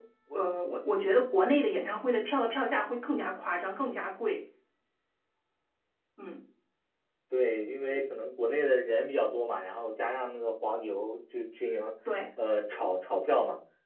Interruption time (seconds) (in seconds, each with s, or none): none